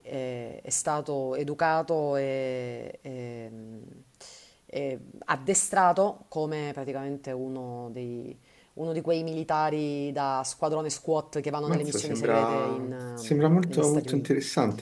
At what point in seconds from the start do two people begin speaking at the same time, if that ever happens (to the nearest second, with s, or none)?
12 s